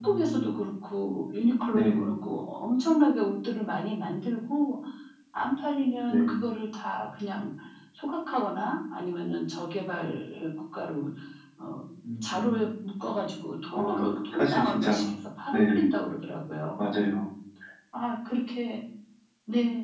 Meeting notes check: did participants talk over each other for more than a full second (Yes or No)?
Yes